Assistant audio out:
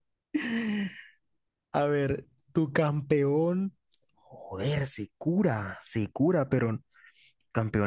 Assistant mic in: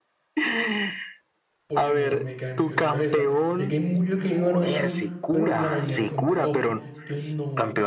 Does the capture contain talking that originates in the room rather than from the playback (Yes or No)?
Yes